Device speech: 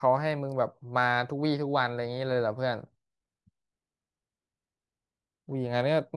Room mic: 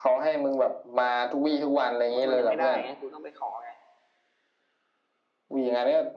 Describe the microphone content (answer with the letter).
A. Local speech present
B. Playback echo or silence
A